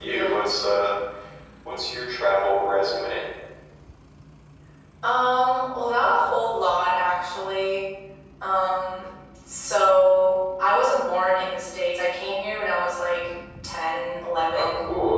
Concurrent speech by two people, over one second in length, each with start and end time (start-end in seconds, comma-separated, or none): none